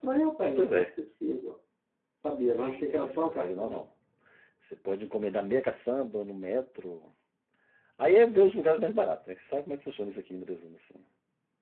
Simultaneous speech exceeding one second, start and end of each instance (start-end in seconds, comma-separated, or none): 2.5-3.8